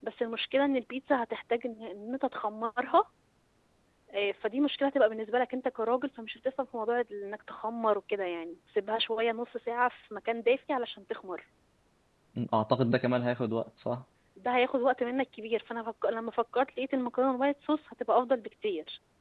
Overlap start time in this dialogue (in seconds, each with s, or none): none